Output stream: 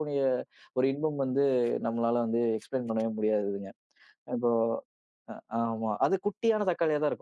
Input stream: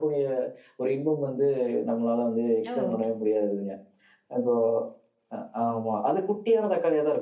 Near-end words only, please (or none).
ஓ!